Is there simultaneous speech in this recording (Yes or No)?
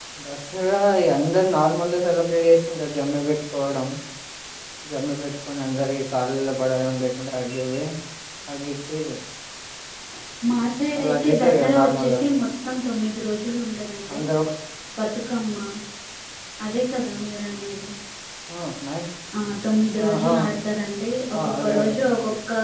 Yes